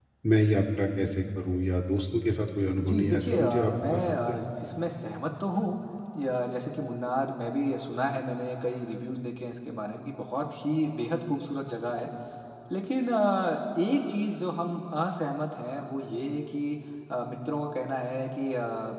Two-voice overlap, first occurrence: 2.8 s

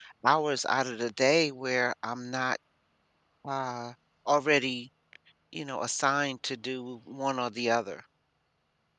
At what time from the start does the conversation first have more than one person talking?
none

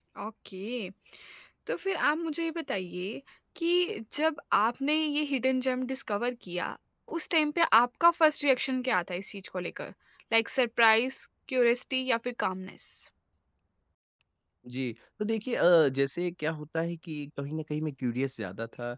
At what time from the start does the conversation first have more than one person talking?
none

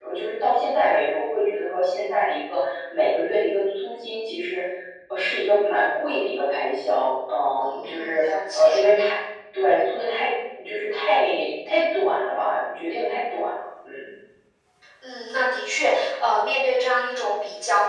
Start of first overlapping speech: 7.6 s

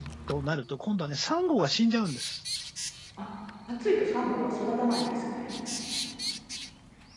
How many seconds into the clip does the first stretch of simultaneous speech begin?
none

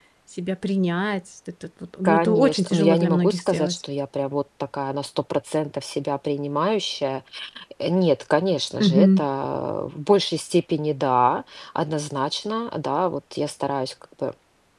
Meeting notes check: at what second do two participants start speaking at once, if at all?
2.0 s

